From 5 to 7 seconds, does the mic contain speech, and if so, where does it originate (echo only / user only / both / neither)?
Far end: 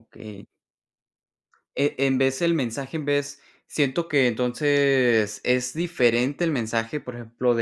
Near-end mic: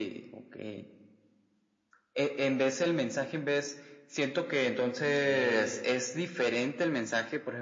both